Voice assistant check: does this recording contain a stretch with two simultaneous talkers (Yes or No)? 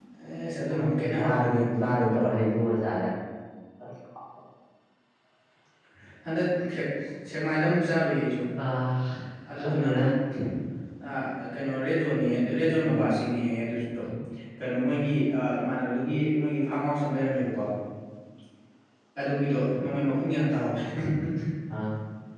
Yes